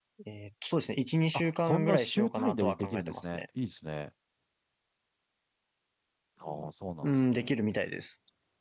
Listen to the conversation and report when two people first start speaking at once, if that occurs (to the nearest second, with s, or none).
1 s